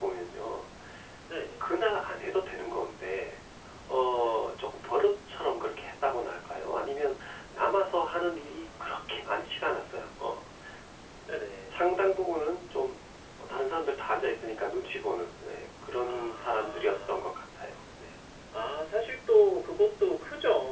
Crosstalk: present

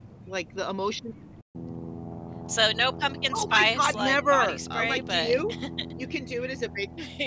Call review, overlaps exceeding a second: present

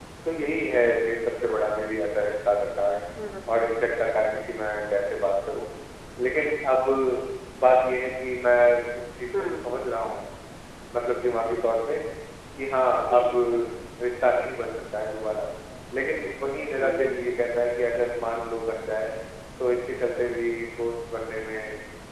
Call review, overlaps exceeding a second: none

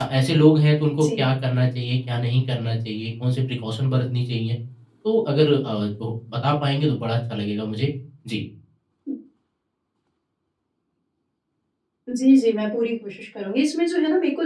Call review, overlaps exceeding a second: none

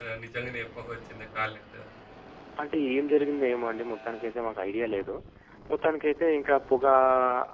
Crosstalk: none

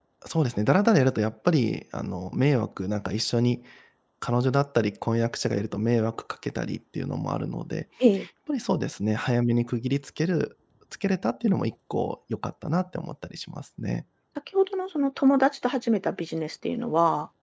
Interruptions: none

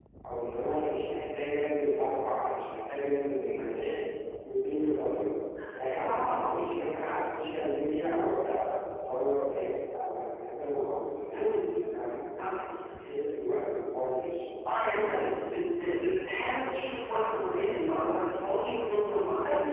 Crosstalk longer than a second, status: none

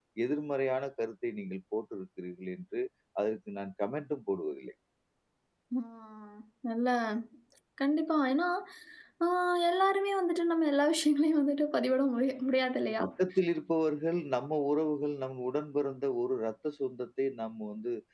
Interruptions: none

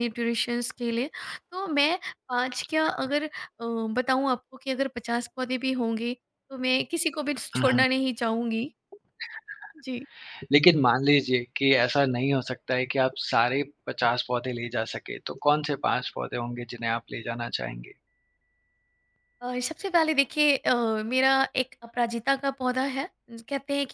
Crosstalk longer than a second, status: none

